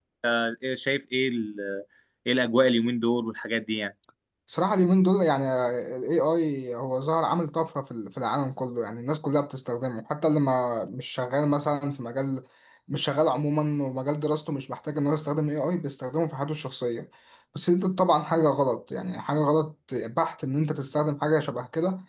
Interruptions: none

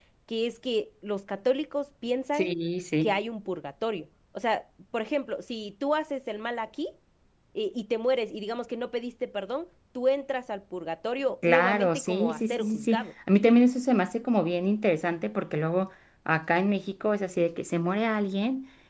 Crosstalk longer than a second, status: present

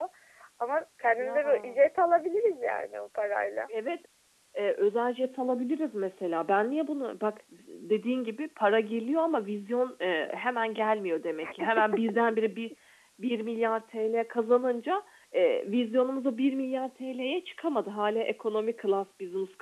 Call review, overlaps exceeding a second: none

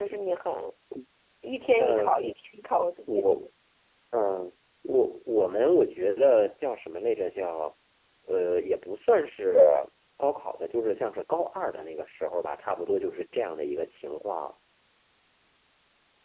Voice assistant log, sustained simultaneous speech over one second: none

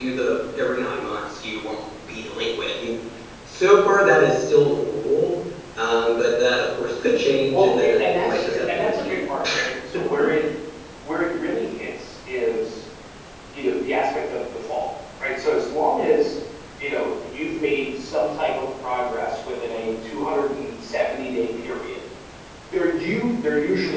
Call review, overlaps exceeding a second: present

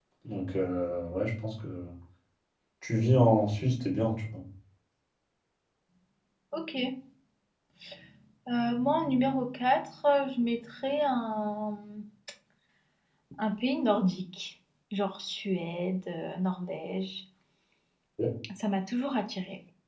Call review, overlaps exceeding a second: none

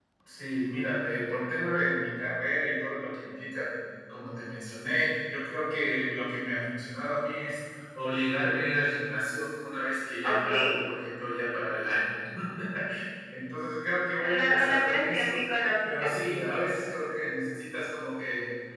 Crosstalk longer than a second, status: present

